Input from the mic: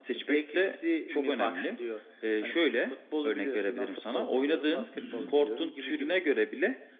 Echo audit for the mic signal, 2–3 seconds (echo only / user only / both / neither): echo only